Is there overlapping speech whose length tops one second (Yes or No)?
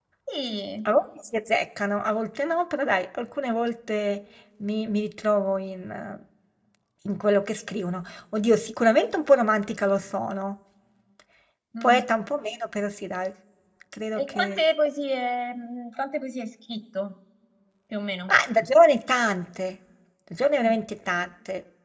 No